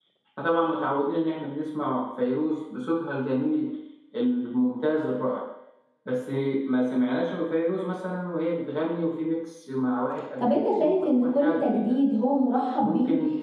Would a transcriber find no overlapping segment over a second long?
No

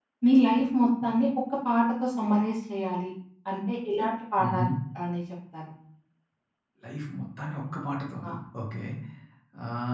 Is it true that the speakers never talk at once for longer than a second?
Yes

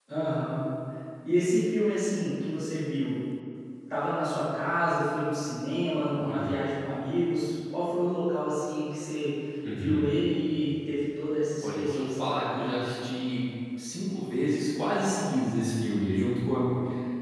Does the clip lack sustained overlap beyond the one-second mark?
No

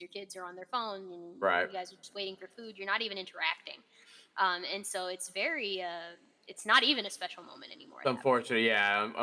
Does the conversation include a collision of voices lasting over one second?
No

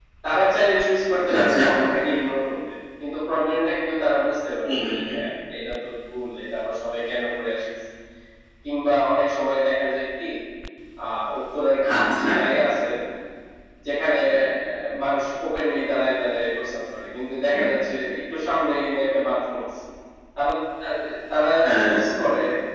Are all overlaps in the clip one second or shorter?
Yes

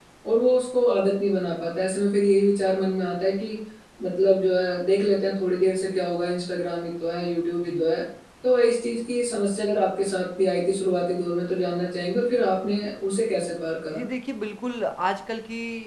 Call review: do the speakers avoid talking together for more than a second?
Yes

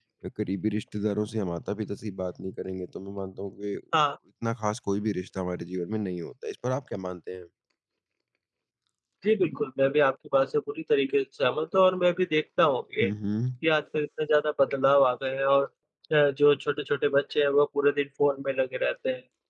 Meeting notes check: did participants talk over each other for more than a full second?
No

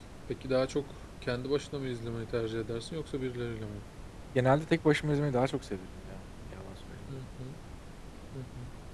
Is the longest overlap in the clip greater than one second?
No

